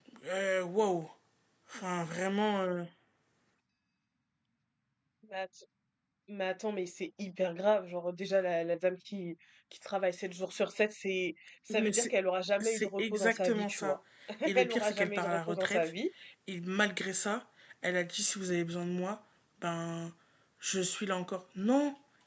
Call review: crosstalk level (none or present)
present